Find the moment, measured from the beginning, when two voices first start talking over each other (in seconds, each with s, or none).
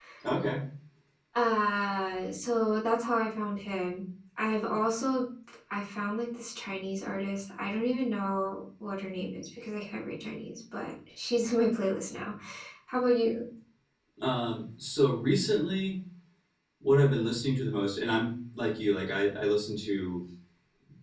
none